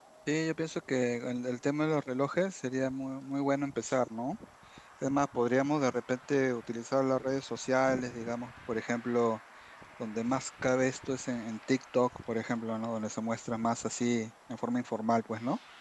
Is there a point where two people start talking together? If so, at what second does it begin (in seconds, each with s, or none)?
none